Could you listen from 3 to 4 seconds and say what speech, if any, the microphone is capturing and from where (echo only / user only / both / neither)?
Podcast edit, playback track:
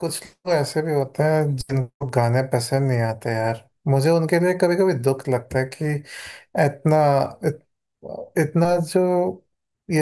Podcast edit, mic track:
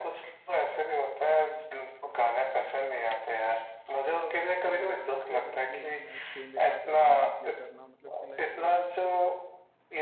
echo only